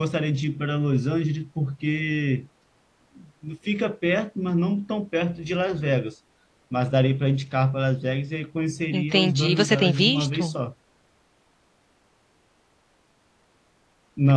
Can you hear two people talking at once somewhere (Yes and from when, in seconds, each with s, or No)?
Yes, from 8.9 s